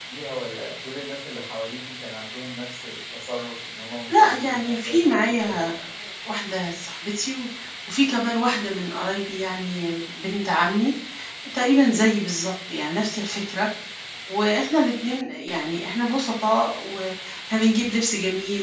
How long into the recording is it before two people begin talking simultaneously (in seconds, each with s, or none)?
4.1 s